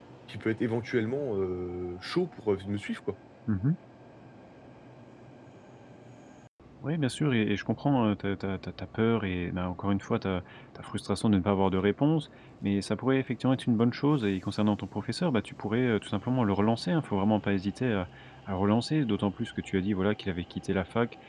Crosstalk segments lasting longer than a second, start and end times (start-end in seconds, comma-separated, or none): none